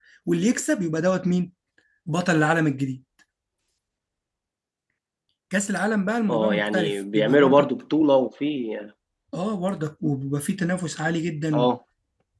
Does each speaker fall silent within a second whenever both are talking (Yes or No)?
No